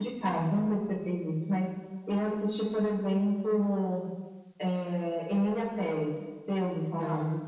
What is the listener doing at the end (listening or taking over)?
taking over